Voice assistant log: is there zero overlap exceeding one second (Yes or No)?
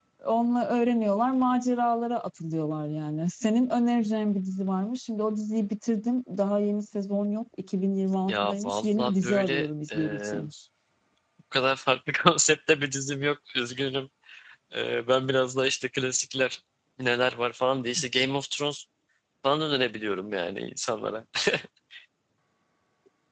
No